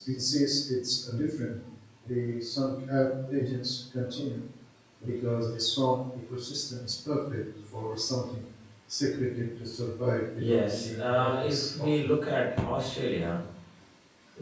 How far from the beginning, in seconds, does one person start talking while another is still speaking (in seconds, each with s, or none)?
10.4 s